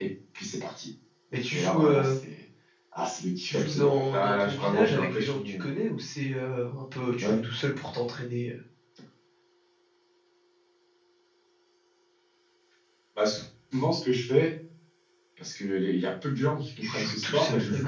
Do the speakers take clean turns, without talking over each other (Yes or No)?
No